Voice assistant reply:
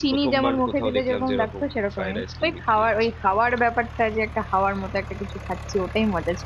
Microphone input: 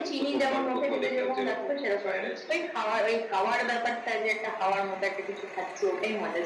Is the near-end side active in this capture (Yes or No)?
No